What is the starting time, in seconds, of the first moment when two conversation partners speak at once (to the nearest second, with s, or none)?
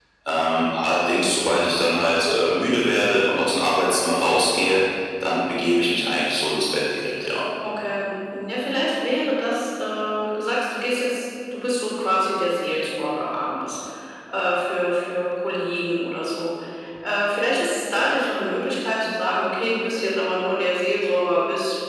none